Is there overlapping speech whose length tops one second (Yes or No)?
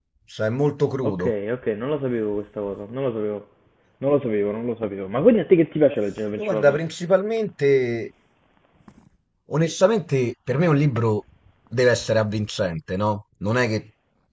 No